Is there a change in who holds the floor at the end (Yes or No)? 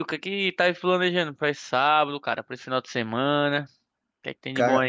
Yes